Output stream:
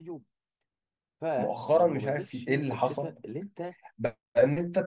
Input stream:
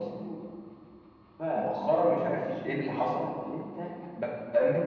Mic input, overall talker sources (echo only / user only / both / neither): echo only